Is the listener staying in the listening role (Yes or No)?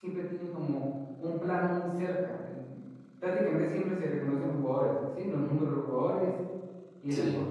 Yes